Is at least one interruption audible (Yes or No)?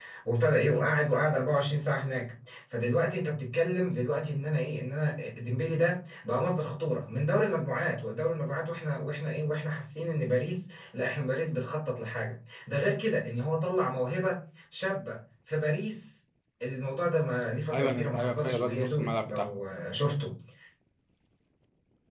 Yes